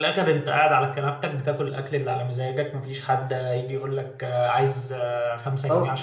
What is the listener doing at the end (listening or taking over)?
taking over